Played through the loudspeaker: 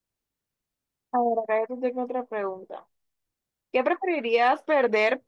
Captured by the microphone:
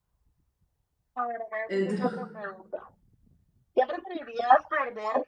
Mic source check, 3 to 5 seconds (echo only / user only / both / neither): echo only